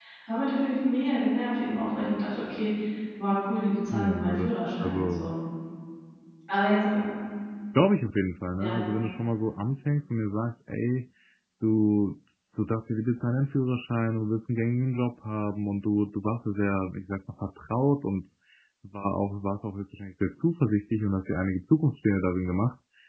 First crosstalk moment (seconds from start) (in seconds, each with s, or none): 3.9 s